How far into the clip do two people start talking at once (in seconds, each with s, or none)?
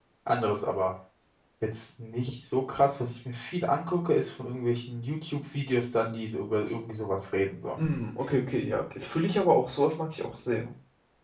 none